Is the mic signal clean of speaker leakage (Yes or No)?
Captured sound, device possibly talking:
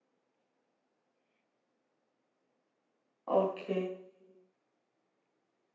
Yes